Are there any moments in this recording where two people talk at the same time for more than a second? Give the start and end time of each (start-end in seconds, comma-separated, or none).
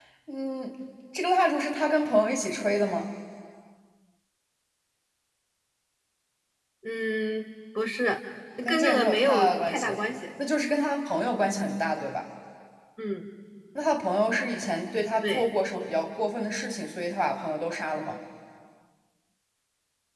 8.7-10.0